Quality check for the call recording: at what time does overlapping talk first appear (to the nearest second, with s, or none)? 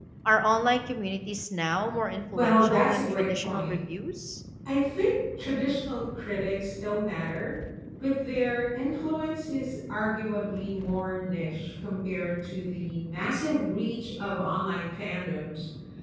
2 s